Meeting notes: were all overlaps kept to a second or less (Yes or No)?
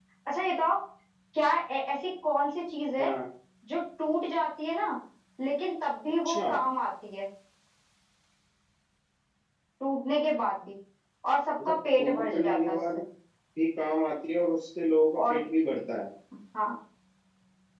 No